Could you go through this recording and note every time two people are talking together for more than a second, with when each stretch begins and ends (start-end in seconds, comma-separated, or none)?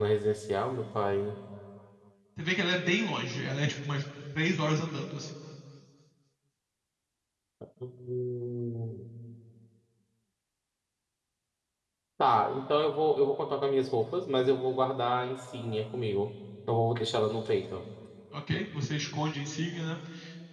none